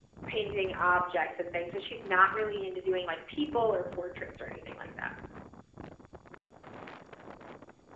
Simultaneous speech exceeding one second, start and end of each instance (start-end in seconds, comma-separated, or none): none